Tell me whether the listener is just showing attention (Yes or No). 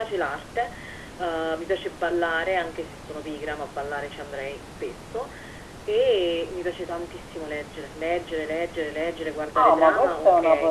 No